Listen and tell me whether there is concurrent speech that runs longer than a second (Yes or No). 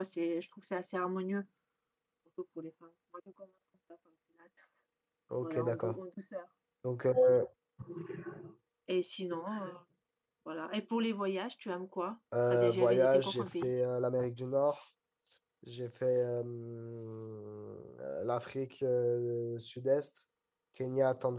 Yes